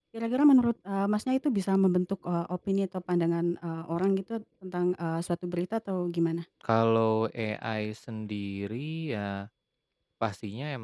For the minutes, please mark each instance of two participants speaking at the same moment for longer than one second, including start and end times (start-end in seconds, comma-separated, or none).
none